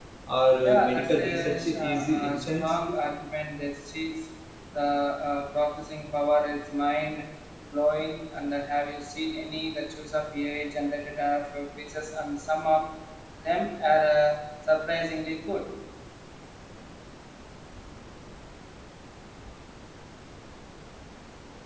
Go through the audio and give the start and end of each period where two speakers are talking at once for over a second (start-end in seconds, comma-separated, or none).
0.6-2.7